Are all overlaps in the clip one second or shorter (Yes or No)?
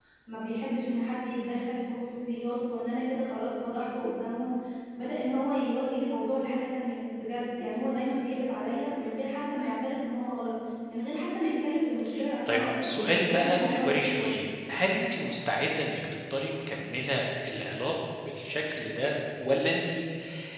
No